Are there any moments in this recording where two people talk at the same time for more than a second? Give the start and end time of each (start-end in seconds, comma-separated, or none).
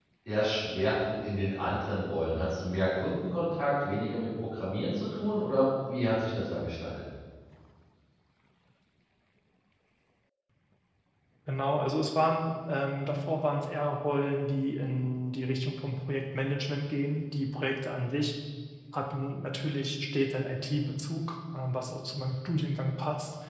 none